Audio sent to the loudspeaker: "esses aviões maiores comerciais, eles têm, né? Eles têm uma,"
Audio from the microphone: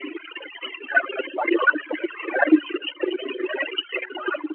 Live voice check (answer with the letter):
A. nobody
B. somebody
A